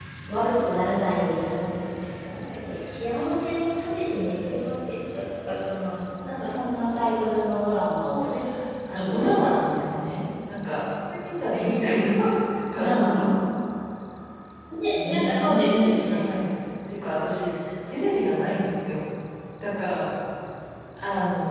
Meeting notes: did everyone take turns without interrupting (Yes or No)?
No